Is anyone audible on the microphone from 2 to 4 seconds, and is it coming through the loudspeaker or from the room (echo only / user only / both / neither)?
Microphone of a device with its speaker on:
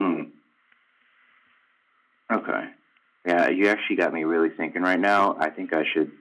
user only